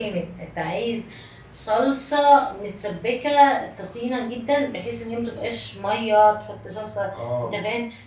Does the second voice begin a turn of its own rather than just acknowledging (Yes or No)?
No